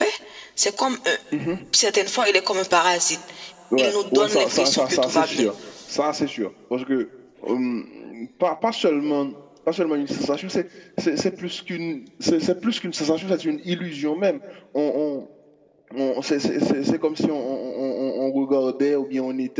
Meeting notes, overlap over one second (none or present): present